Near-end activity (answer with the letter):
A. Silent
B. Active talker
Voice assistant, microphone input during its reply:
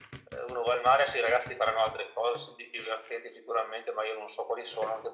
A